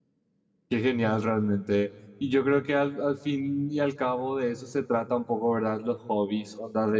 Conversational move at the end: listening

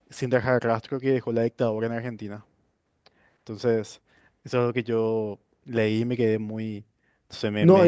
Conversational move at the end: taking over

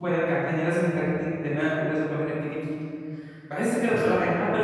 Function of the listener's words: listening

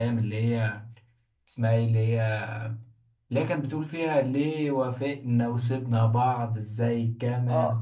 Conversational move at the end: taking over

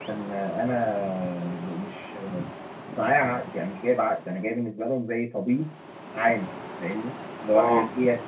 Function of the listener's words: listening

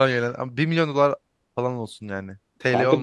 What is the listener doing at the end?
taking over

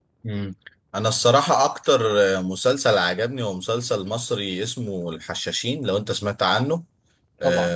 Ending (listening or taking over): listening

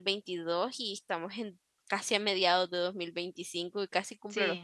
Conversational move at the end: taking over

